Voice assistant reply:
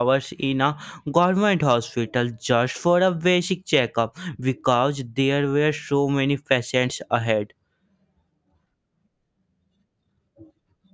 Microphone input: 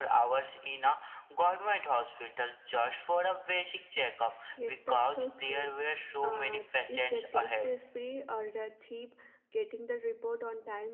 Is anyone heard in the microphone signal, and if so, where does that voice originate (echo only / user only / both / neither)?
both